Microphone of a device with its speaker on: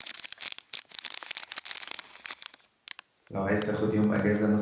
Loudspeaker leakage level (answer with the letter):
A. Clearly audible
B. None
B